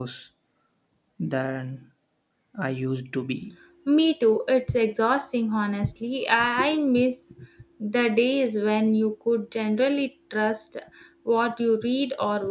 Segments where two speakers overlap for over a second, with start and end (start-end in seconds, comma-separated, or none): none